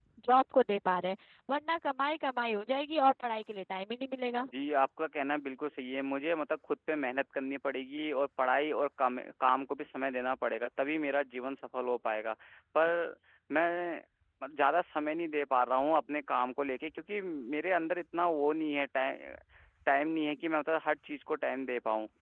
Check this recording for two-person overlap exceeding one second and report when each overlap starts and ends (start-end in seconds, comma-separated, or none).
none